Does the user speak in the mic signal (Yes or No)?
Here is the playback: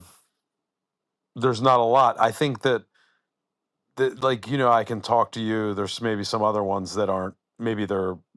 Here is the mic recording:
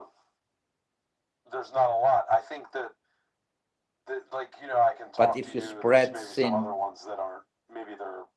Yes